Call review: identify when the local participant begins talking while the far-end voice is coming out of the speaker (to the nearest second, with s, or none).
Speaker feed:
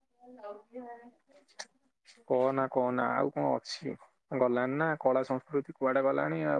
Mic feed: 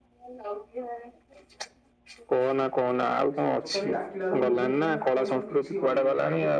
3 s